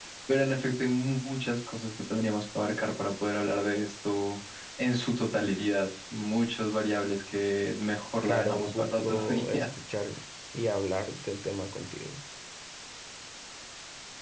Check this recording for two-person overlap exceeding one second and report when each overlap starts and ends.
8.2-9.6

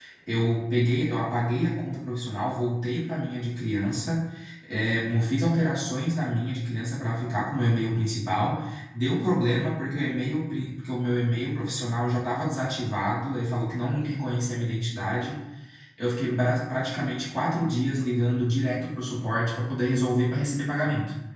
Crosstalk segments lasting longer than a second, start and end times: none

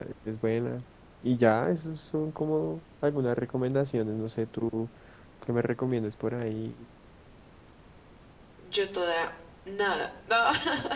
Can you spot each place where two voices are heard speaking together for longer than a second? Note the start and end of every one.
none

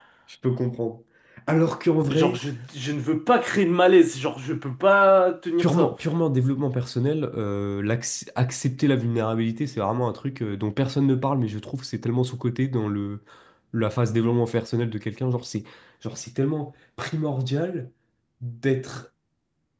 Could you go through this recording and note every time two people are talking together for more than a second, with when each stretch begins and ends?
none

